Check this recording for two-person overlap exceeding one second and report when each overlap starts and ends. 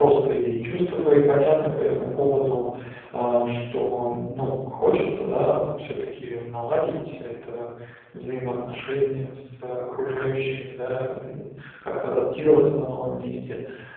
none

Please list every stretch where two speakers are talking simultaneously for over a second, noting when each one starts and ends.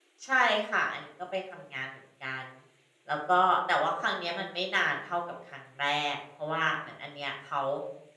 none

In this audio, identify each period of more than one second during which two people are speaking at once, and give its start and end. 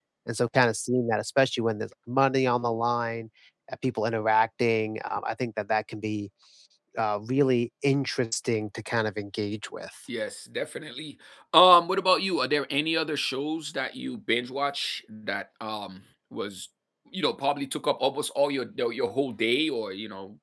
none

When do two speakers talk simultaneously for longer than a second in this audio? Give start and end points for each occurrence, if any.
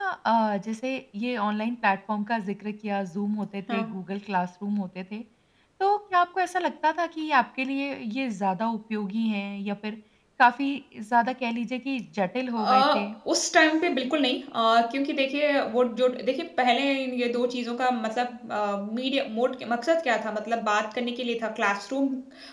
none

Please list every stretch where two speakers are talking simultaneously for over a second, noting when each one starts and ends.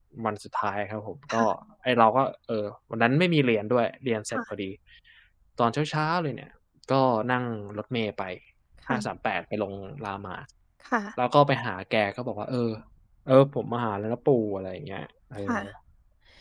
none

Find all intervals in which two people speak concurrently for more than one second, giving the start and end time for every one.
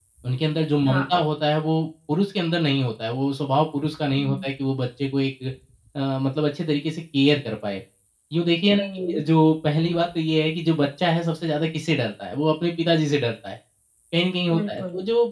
none

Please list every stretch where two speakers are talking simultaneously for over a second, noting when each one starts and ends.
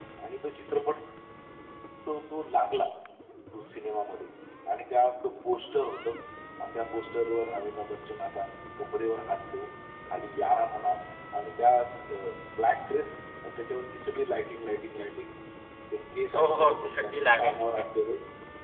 16.3-17.8

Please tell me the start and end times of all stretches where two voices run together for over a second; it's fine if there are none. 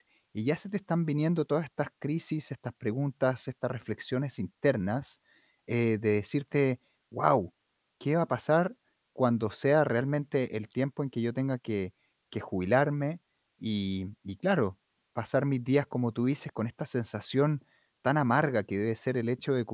none

